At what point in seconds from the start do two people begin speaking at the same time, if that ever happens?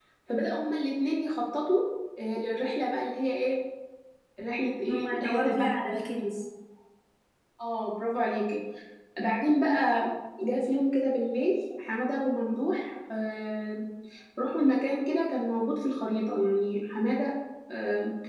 4.8 s

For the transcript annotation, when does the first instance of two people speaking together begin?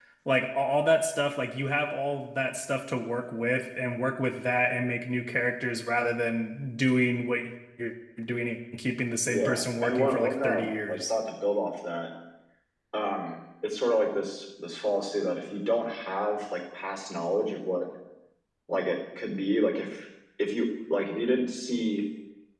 9.3 s

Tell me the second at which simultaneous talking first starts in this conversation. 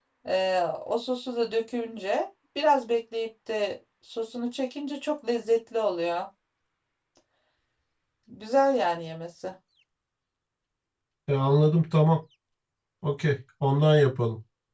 none

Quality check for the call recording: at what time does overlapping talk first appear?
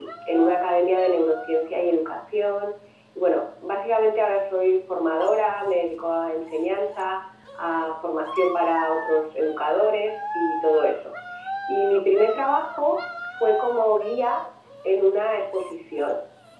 none

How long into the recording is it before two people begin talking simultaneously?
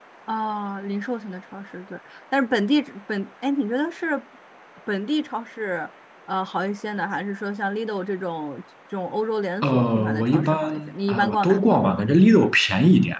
9.6 s

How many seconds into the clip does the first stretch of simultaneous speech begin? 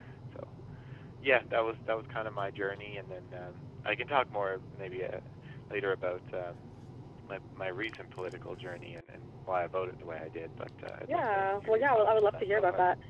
11.1 s

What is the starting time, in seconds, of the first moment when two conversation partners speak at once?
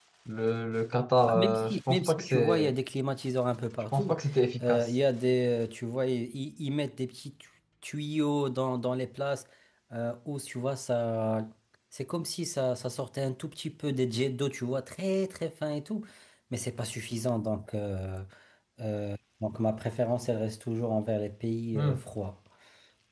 1.2 s

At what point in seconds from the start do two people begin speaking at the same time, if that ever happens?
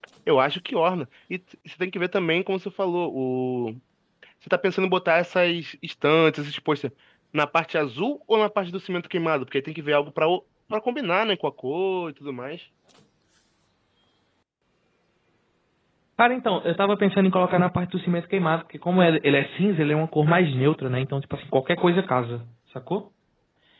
none

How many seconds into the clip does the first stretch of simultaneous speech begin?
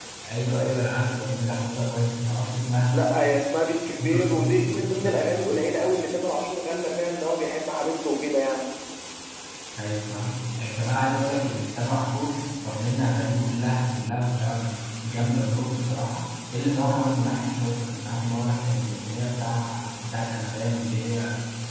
4.0 s

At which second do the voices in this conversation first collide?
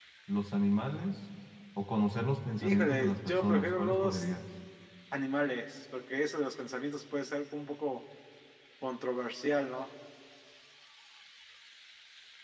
2.6 s

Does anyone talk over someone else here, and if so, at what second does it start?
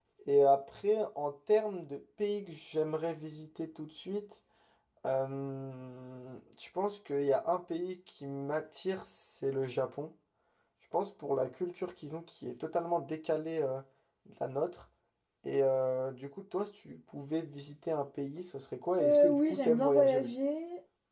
19.0 s

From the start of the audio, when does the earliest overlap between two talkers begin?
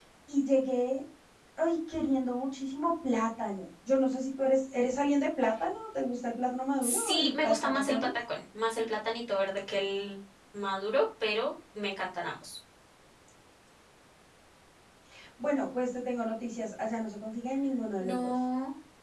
6.8 s

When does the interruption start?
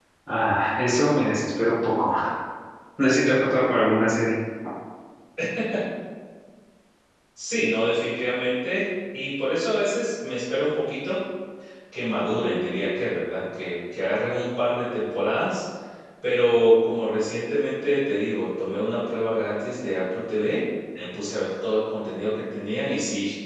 none

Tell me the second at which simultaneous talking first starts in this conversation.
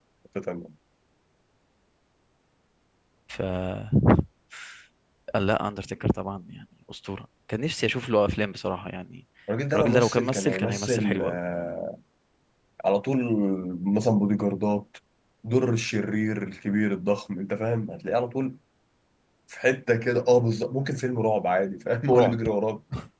9.8 s

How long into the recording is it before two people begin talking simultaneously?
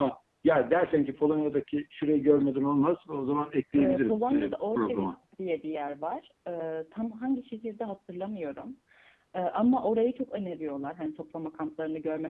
3.8 s

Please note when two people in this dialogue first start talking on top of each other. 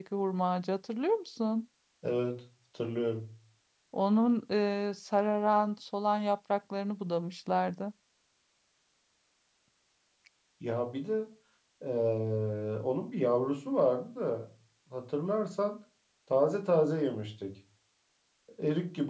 none

